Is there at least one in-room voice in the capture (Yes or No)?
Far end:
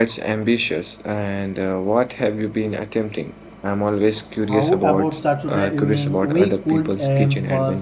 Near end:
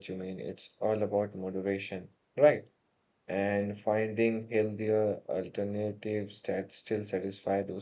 Yes